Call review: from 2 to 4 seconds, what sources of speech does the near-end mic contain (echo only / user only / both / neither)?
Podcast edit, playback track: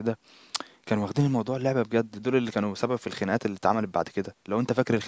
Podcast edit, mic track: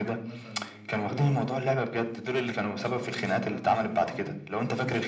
both